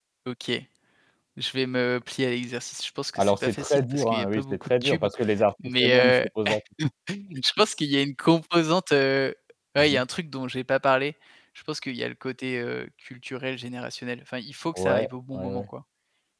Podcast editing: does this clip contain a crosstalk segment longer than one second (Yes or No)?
Yes